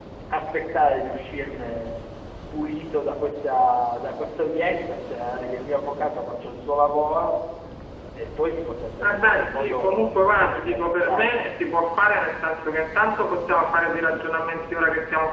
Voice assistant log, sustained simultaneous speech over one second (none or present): present